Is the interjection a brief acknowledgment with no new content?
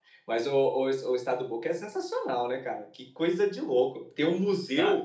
Yes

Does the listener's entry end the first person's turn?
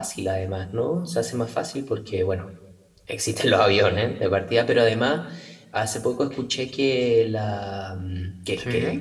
No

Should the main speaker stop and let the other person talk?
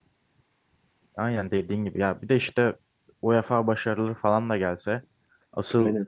No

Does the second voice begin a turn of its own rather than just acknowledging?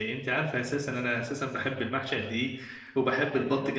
No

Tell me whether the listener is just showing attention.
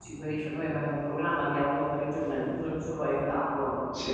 Yes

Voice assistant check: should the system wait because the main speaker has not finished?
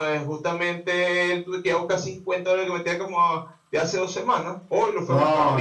No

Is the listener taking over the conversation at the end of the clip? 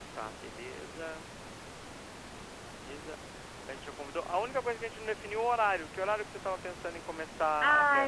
Yes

